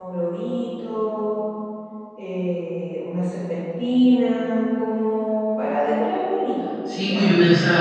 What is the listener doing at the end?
taking over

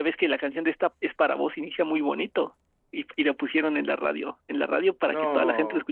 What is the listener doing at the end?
listening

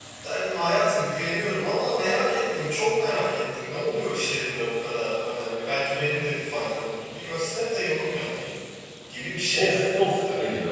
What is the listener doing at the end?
taking over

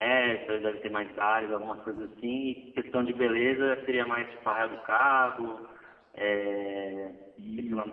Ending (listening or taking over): taking over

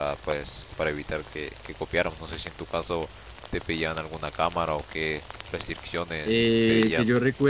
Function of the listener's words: taking over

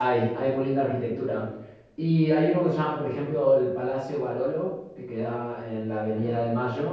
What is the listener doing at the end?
listening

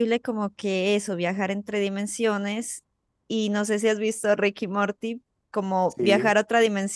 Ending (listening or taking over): listening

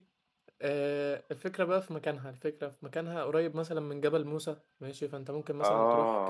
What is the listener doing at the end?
listening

